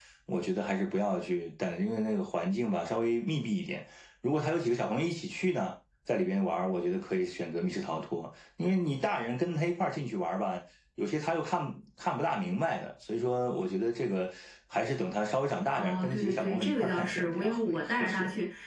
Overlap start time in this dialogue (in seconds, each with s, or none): 15.8 s